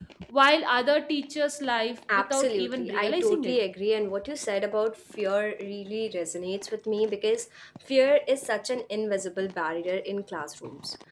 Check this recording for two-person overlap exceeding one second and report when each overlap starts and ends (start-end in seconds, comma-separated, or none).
2.1-3.6